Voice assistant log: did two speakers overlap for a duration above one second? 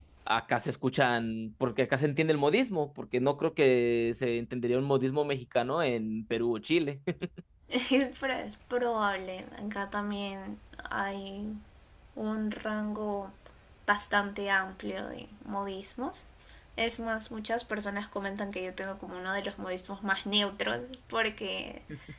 No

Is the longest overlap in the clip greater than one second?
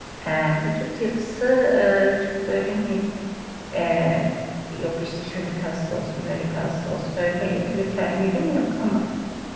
No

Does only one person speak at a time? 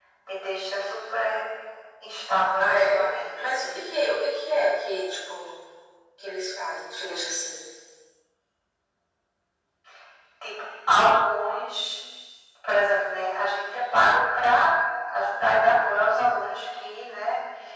No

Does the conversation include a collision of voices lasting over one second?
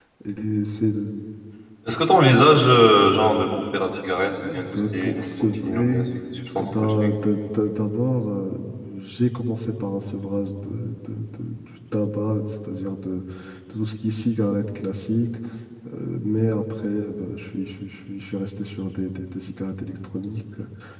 Yes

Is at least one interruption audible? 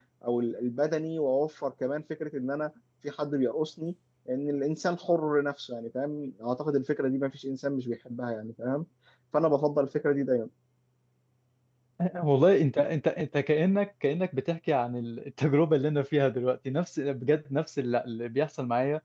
No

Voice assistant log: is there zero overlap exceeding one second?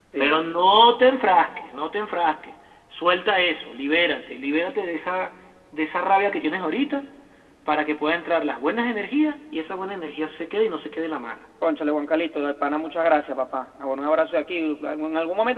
Yes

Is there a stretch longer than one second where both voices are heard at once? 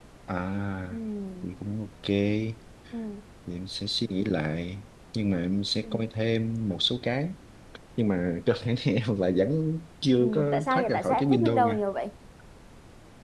Yes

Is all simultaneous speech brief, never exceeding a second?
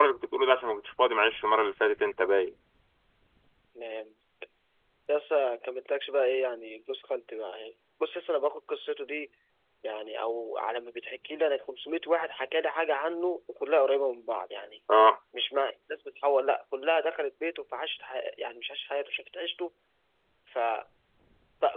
Yes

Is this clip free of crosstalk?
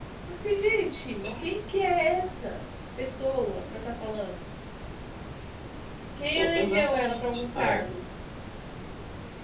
No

